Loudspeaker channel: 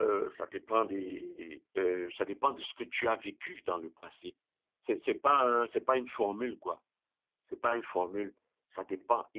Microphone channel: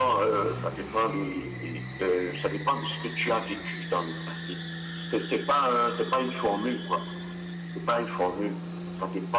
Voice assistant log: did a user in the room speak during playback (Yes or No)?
No